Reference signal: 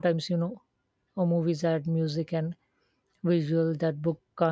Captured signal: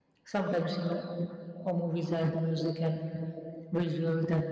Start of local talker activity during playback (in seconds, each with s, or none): none